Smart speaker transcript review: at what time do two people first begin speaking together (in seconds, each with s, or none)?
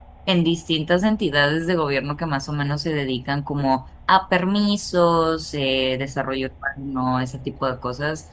none